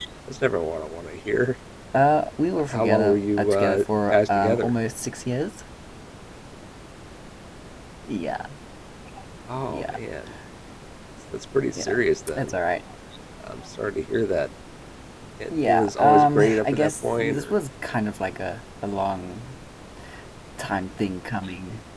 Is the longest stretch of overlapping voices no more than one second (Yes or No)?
No